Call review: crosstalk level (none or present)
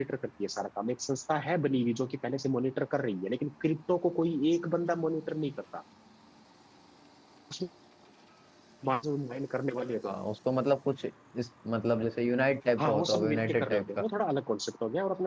present